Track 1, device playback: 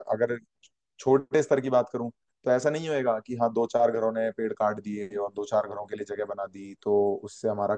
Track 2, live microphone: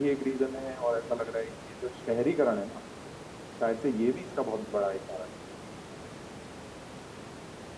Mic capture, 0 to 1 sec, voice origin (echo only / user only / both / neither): user only